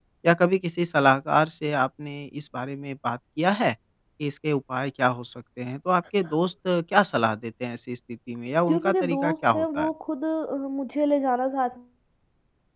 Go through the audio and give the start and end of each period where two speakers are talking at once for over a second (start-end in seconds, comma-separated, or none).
8.7-9.9